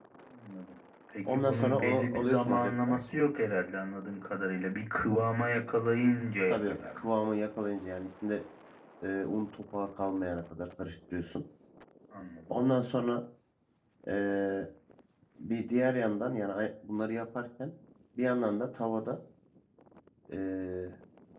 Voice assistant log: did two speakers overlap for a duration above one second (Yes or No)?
Yes